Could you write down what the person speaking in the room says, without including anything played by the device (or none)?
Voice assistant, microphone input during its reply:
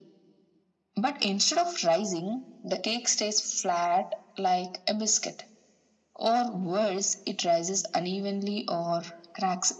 none